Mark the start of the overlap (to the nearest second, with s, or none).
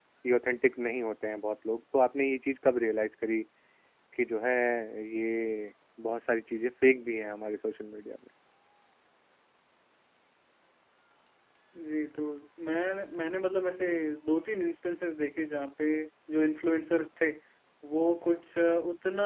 none